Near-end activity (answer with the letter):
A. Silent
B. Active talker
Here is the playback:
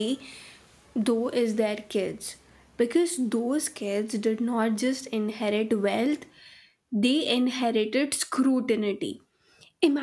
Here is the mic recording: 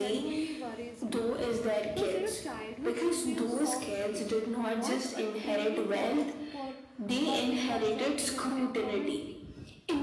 B